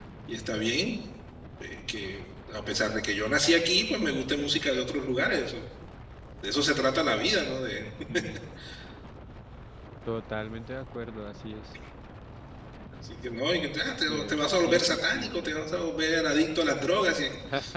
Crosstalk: present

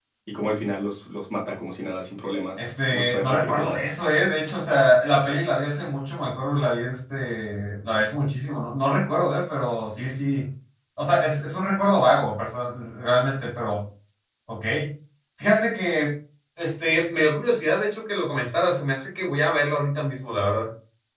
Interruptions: present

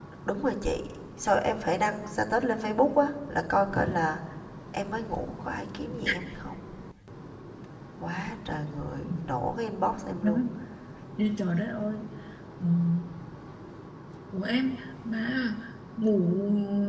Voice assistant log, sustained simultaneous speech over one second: none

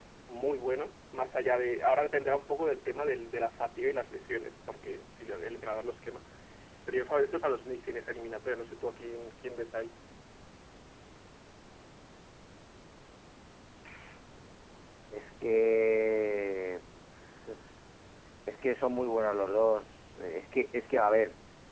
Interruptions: none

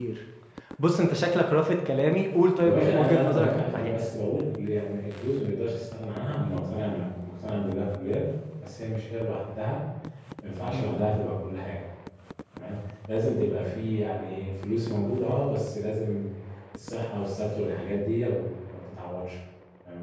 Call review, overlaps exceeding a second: present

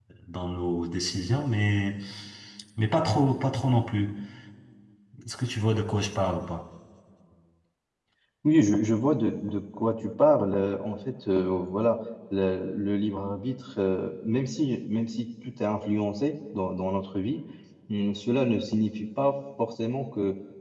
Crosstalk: none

